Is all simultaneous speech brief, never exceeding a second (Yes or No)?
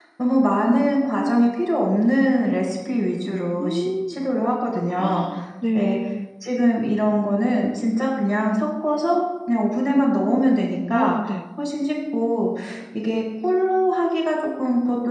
Yes